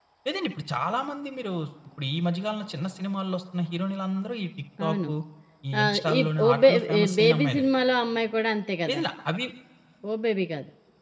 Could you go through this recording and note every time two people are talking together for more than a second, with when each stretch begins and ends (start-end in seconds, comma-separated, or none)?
5.8-7.6